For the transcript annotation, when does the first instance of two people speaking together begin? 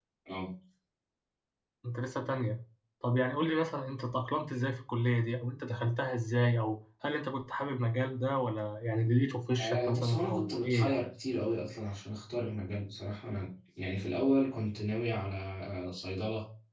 9.6 s

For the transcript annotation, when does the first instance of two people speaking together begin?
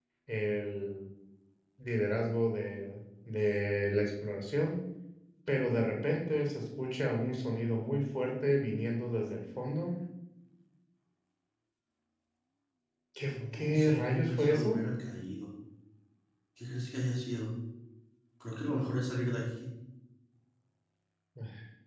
13.2 s

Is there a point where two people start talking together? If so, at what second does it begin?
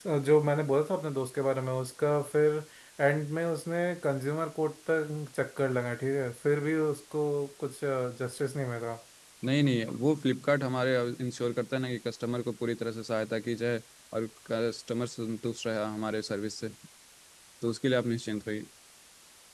none

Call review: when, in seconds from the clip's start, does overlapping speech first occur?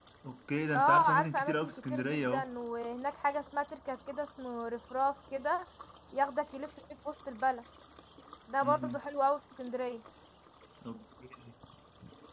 0.7 s

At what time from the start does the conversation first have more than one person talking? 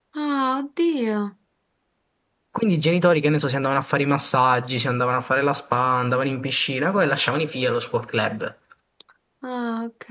none

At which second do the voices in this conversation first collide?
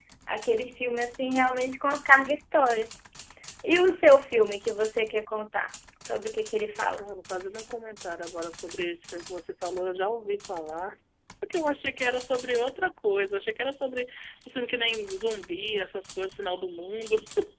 none

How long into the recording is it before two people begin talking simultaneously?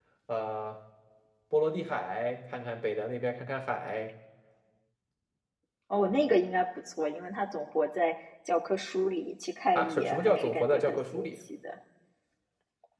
9.8 s

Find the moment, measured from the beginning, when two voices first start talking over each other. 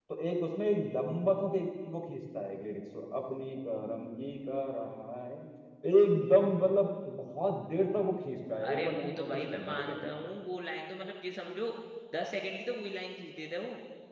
8.6 s

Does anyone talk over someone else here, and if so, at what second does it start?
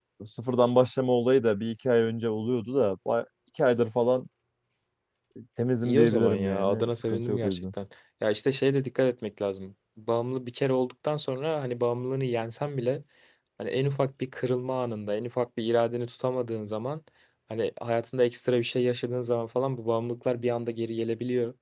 5.8 s

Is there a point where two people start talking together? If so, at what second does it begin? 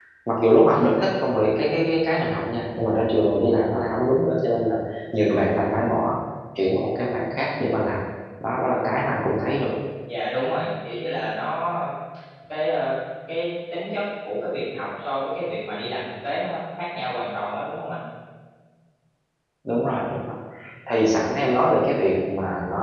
none

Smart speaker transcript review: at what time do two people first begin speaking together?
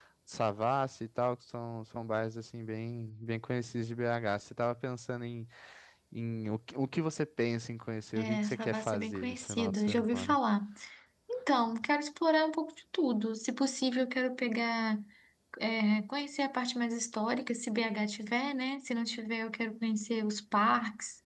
8.2 s

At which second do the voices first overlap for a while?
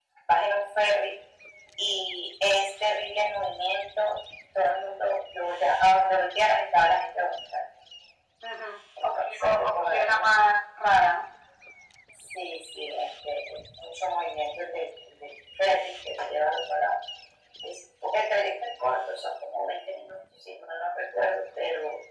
9.0 s

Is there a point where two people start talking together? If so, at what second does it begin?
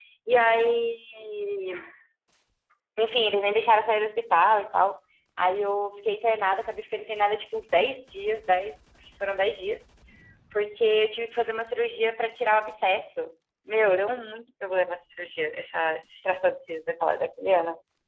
none

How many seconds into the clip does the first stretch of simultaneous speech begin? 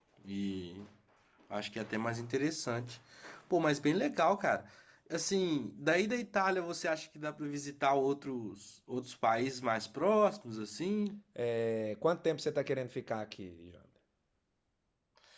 none

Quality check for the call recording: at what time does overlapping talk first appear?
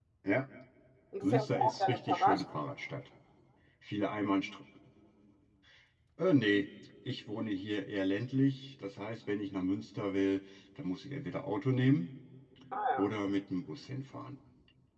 1.2 s

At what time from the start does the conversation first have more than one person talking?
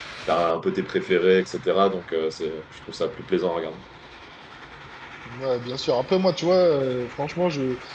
none

